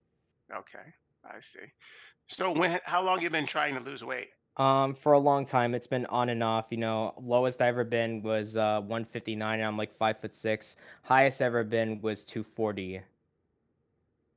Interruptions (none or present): none